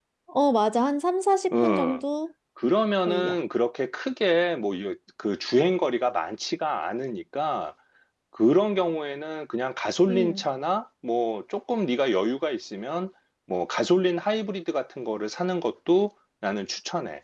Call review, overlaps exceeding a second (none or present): none